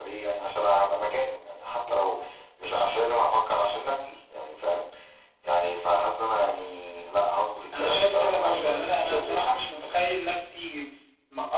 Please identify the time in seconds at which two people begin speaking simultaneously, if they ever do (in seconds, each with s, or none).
7.7 s